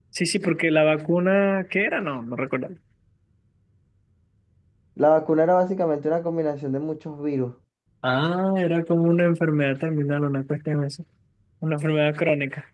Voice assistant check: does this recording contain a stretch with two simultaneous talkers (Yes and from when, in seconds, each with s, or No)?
No